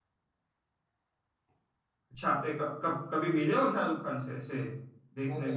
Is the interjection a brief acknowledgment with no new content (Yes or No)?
No